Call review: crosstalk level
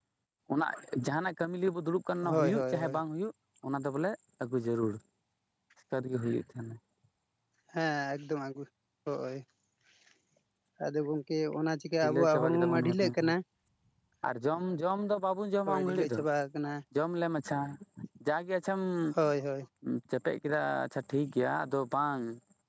present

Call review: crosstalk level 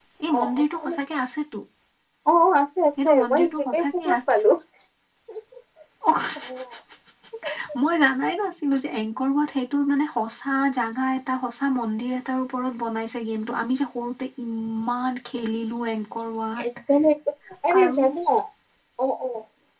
present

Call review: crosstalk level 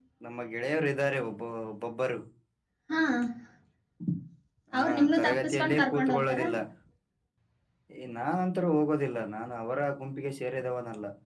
present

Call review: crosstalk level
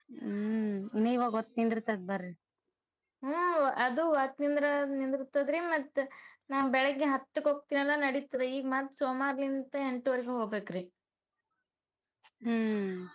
none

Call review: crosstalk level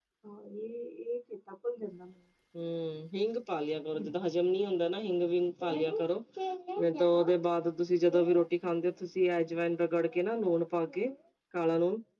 none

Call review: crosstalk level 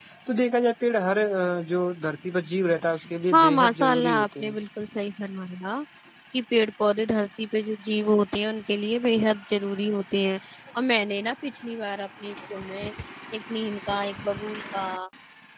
present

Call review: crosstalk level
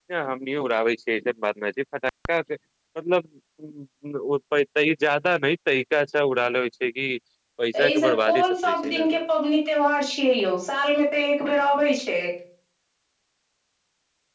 present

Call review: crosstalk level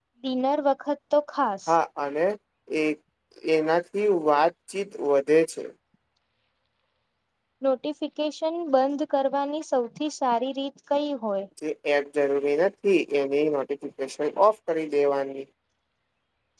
none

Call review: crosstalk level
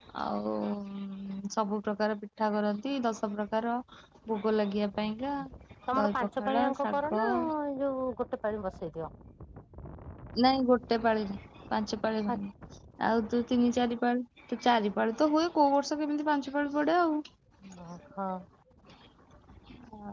present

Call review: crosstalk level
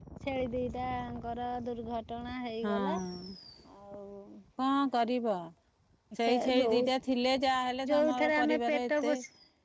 present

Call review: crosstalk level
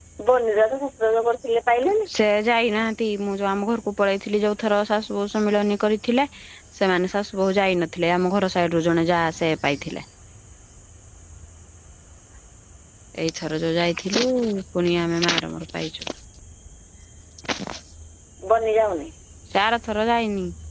none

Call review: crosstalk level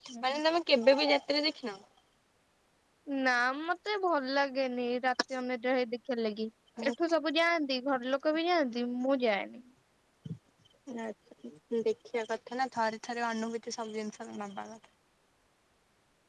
none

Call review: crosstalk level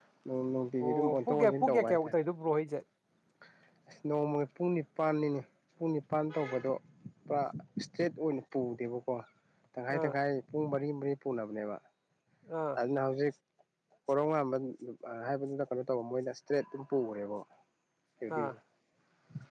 present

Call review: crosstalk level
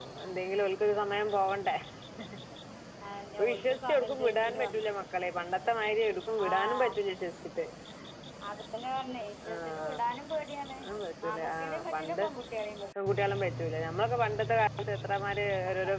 present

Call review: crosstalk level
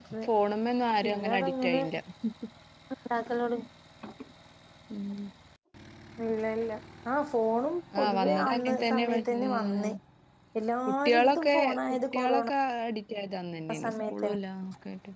present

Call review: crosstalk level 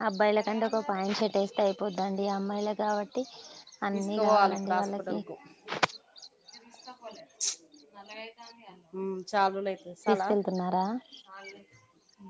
present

